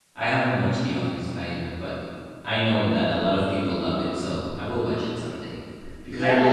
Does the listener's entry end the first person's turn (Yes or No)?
Yes